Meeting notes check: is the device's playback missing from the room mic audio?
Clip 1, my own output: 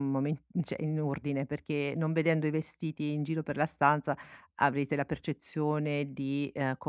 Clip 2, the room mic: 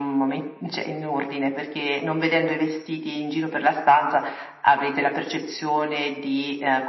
No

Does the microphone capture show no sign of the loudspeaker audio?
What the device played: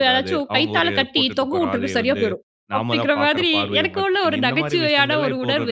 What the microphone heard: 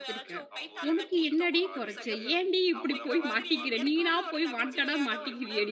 No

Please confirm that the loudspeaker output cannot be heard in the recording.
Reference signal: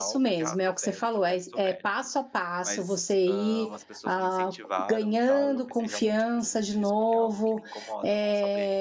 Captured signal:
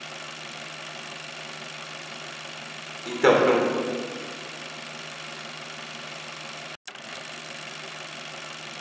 Yes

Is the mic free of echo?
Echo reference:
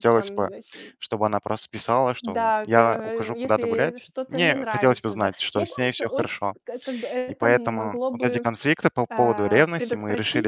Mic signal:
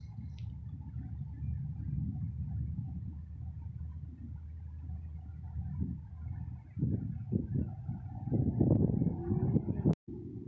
Yes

